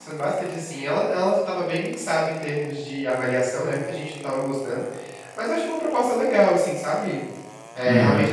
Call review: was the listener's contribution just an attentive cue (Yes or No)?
Yes